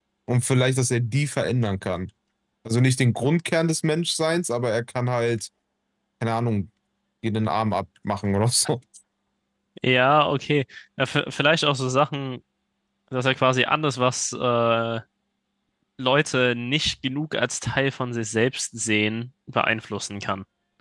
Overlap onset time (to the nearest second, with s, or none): none